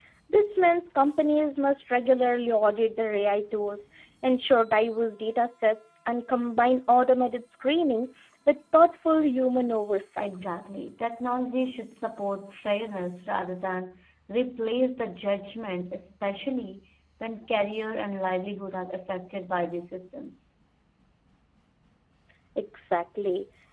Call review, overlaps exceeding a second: none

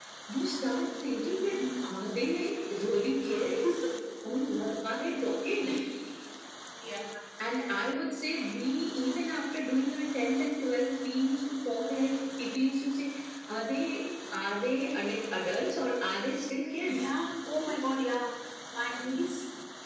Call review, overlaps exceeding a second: none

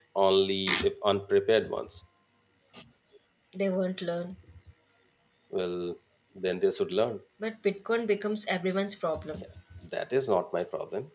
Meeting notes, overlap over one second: none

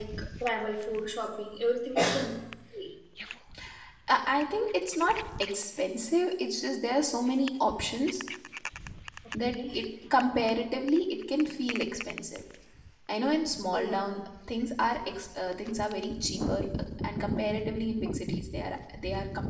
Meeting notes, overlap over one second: none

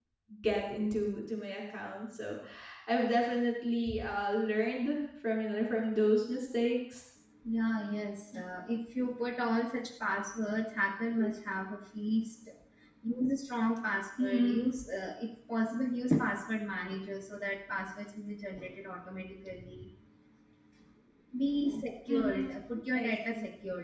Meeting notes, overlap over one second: none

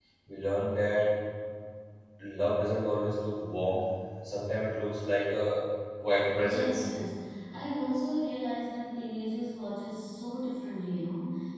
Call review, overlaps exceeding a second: none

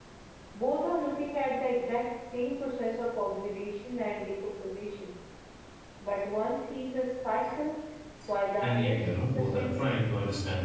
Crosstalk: present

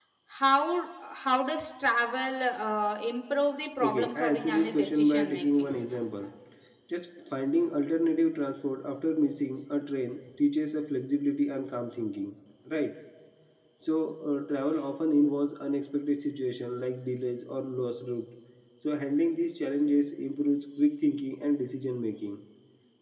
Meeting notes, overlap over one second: present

